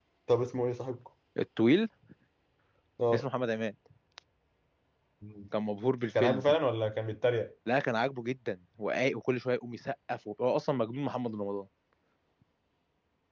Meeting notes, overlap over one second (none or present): none